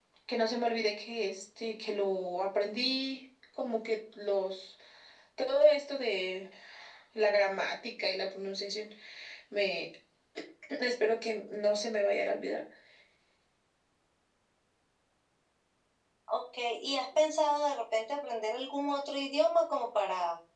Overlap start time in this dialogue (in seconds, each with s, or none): none